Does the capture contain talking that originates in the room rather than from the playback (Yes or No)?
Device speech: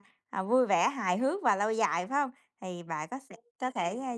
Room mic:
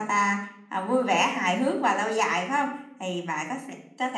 No